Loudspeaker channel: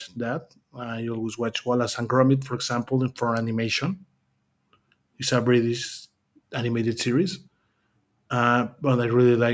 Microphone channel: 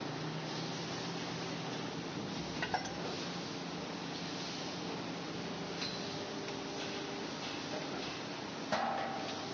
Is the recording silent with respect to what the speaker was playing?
Yes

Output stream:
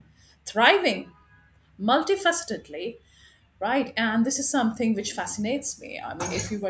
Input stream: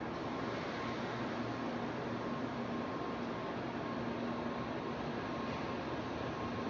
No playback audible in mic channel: Yes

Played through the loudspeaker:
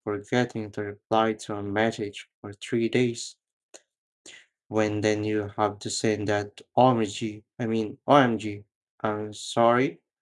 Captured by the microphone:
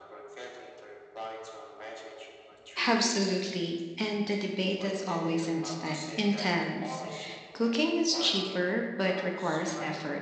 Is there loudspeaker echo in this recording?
Yes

